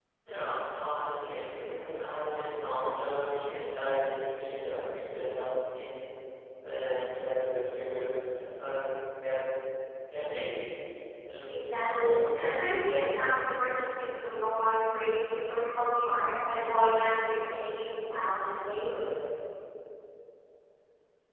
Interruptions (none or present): present